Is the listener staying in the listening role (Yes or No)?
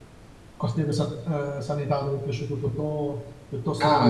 No